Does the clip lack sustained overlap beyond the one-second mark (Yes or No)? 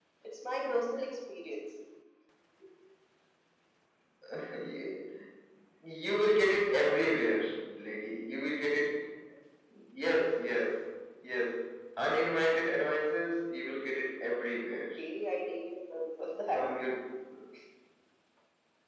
Yes